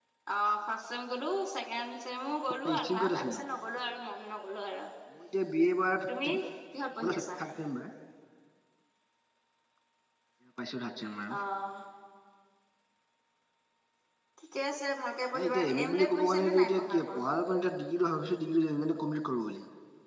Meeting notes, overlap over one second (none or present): present